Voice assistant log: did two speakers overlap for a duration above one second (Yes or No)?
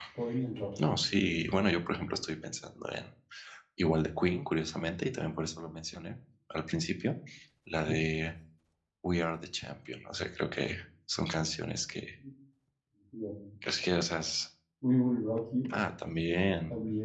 No